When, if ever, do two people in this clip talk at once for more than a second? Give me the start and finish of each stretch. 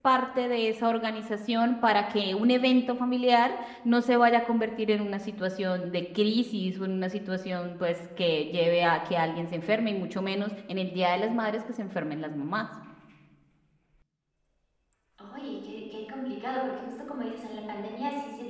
none

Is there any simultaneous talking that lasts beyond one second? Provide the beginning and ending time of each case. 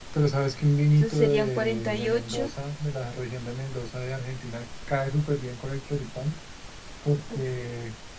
0.9-2.5

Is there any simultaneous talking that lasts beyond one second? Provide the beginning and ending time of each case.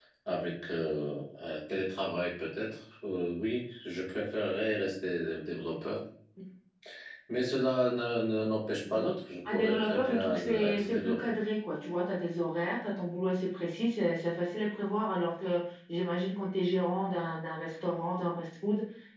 9.5-11.3

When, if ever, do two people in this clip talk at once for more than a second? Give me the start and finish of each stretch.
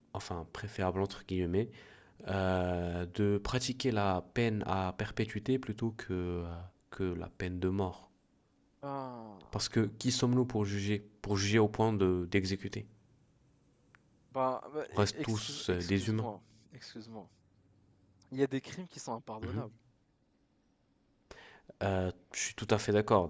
14.9-16.3

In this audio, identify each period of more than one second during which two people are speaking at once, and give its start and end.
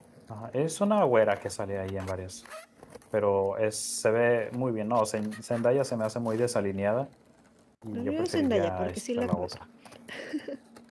7.9-9.6

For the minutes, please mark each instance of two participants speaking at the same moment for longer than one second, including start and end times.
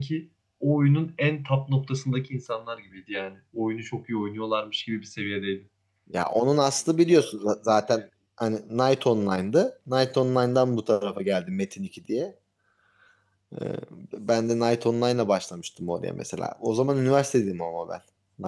none

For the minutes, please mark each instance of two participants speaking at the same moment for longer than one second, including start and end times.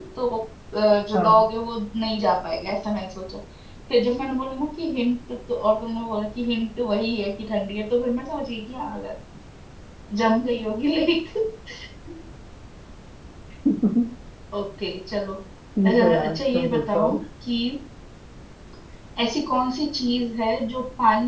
15.9-17.2

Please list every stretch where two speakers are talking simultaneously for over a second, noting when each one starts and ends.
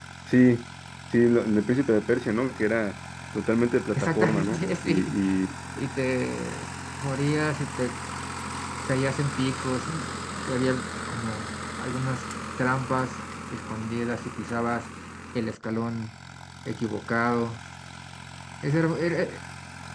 4.0-5.2

